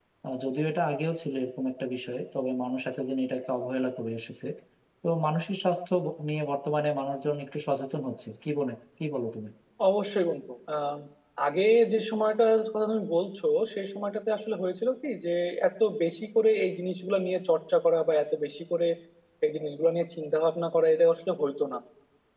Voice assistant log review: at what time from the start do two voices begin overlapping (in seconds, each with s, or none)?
none